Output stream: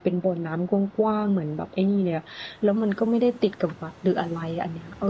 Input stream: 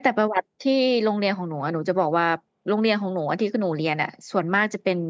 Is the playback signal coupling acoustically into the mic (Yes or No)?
No